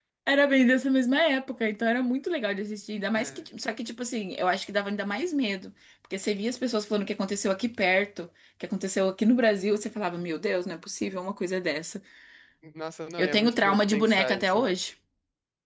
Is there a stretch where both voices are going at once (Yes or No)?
Yes